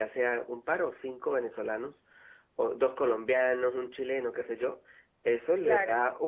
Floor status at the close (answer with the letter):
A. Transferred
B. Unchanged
B